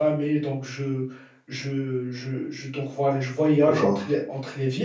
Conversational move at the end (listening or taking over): listening